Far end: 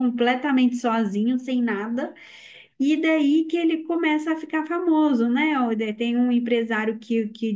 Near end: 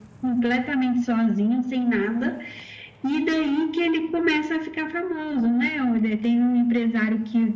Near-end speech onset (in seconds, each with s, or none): none